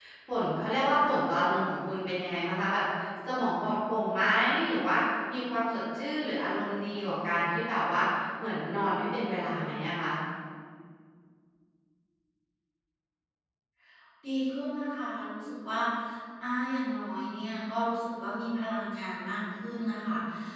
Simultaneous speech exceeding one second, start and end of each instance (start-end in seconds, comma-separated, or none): none